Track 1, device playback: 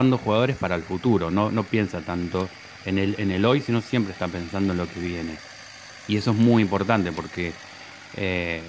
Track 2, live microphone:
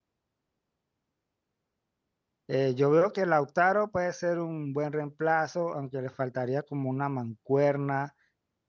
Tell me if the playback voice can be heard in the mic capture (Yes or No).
No